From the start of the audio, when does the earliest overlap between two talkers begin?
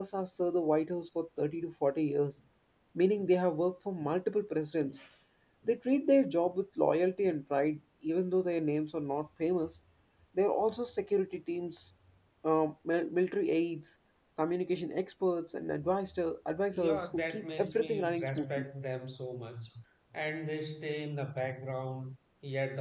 17 s

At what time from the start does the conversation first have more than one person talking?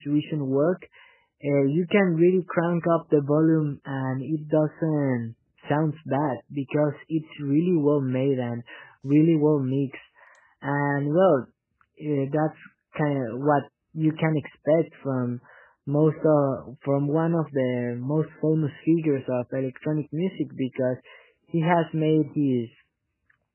none

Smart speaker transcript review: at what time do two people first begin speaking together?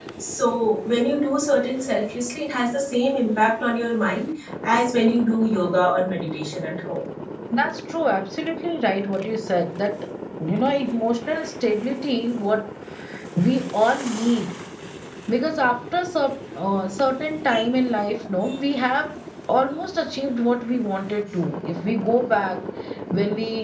none

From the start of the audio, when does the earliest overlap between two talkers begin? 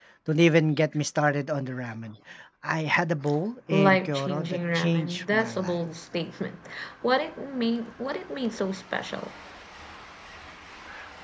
4 s

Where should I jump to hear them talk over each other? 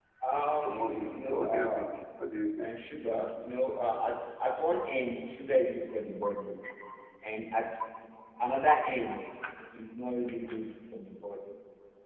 1 s

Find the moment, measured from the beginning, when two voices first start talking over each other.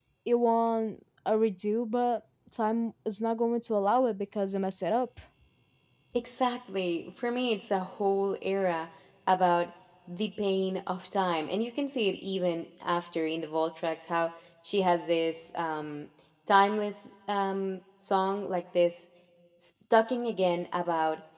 none

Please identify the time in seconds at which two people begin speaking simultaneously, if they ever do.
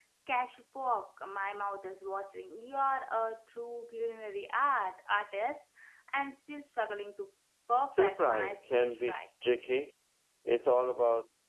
8 s

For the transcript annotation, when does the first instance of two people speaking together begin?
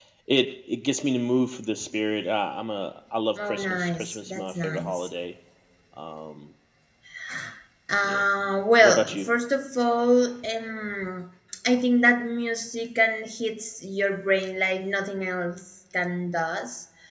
3 s

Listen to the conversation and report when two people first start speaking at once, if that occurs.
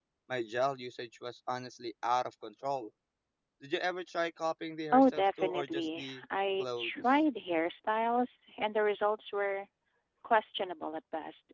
5 s

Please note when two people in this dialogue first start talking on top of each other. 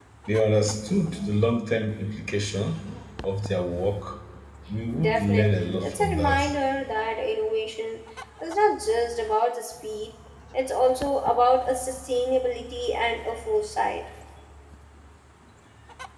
5 s

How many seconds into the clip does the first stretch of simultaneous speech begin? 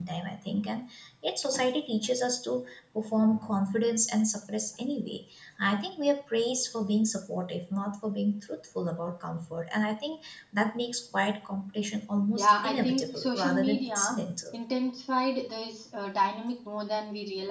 12 s

